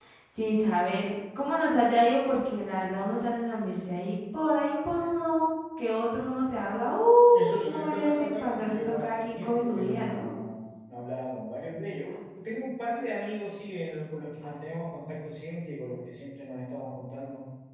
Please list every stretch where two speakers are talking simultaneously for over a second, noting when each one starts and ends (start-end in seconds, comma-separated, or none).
7.3-10.3